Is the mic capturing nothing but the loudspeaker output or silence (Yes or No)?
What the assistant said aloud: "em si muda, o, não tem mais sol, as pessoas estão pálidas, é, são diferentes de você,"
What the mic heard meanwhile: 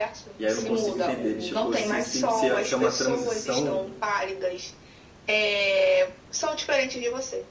No